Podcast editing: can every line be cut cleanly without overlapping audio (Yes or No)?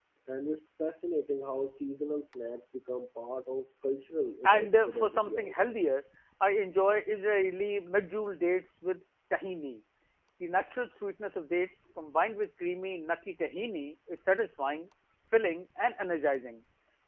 No